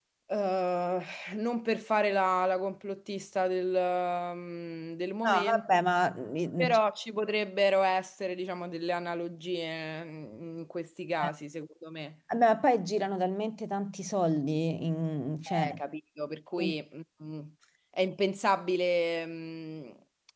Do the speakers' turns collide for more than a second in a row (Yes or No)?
No